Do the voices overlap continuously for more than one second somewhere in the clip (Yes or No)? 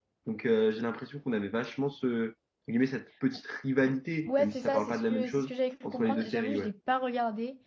Yes